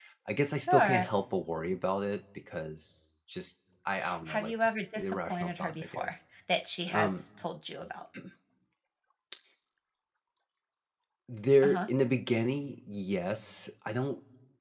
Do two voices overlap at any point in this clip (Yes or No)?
Yes